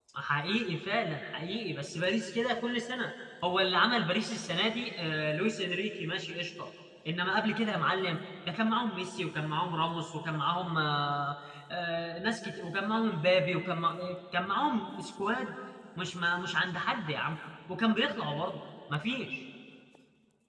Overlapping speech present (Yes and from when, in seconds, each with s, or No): No